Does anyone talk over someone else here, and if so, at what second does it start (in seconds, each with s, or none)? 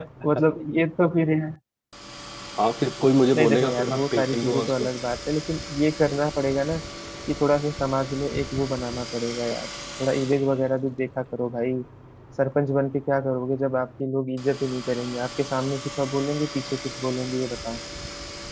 3.4 s